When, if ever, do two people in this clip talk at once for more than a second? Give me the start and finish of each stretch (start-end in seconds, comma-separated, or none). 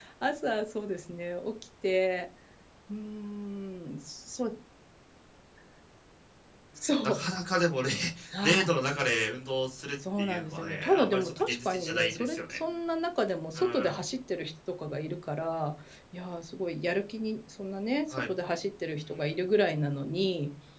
10.2-12.6